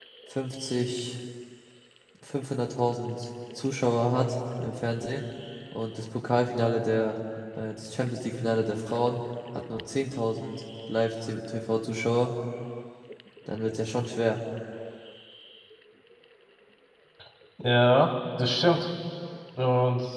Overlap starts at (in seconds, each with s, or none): none